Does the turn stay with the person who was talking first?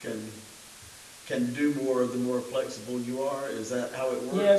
No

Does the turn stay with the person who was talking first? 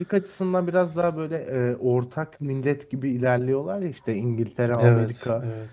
Yes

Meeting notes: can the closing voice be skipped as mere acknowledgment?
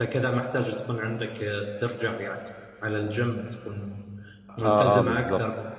No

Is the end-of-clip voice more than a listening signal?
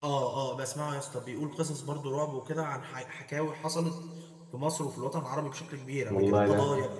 No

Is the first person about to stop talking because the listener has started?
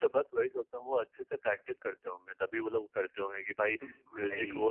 No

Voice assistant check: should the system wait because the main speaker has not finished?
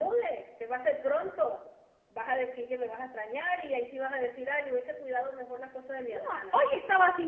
No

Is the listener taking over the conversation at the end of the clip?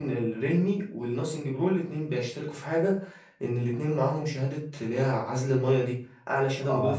No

